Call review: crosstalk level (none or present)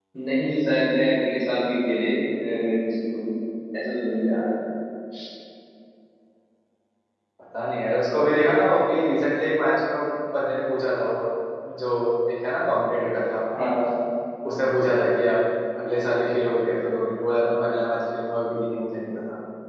none